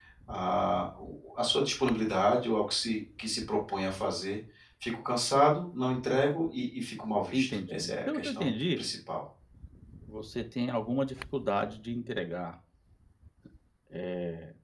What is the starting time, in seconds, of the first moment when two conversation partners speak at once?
7.3 s

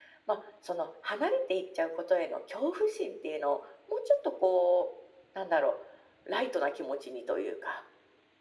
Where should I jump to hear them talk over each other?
none

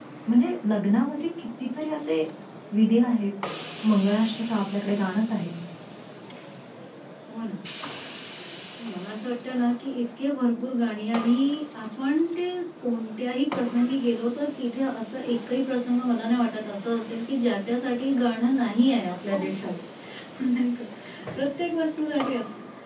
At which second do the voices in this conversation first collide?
none

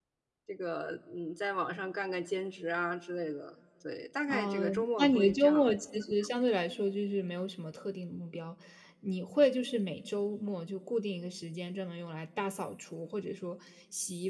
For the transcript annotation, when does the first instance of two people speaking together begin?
4.3 s

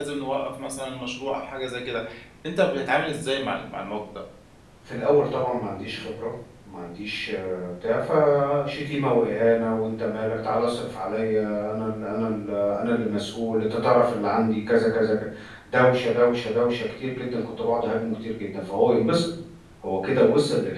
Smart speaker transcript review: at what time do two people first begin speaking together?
none

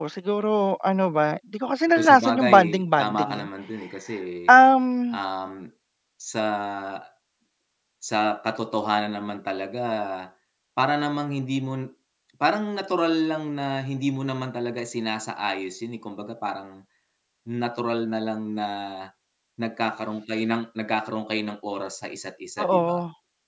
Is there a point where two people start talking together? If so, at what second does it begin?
2.0 s

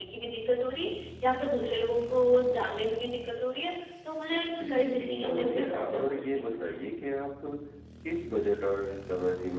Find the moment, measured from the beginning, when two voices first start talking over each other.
4.5 s

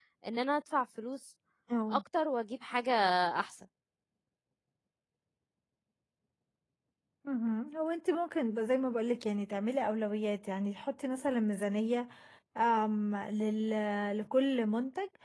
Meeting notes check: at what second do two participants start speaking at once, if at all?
none

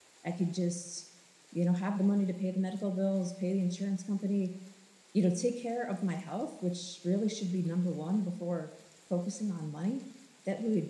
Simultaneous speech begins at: none

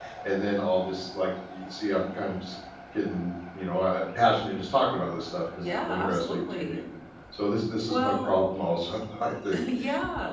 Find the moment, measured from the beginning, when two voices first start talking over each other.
5.6 s

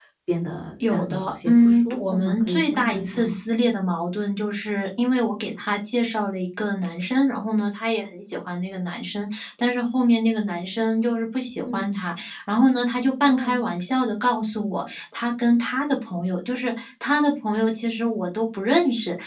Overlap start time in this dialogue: 0.8 s

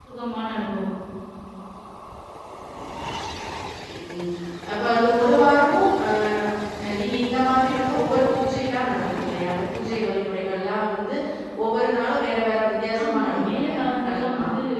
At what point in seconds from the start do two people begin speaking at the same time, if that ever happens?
12.9 s

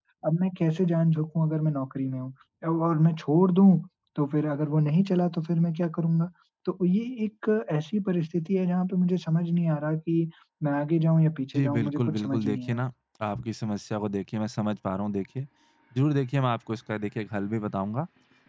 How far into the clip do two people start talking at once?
11.5 s

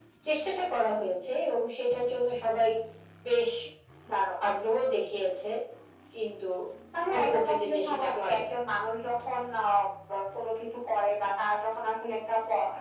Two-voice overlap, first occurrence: 7.1 s

